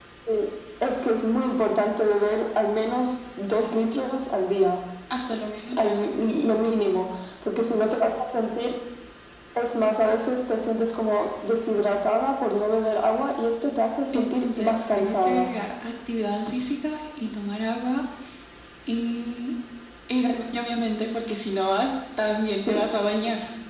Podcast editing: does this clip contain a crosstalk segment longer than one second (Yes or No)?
Yes